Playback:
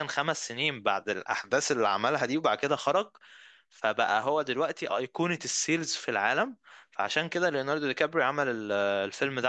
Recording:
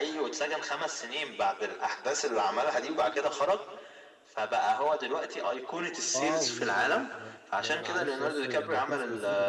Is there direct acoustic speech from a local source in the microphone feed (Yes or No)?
Yes